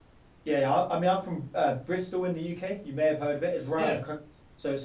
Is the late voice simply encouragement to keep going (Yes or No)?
Yes